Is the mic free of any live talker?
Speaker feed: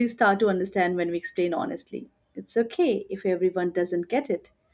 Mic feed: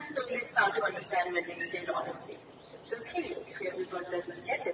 Yes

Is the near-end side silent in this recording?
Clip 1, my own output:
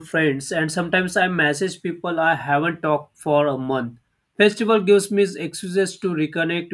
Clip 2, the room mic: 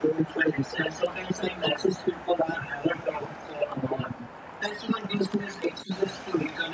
Yes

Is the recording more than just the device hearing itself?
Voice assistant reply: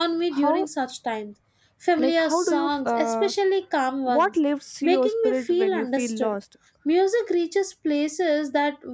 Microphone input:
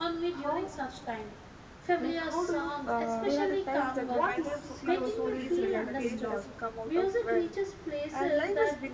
Yes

